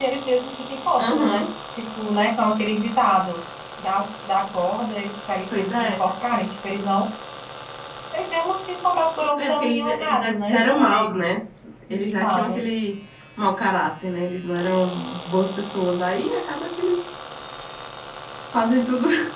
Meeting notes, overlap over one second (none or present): present